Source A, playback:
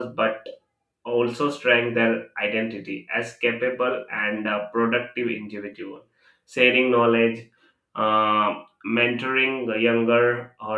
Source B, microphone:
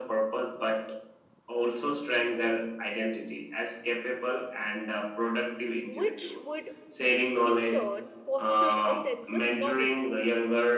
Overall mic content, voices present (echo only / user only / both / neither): both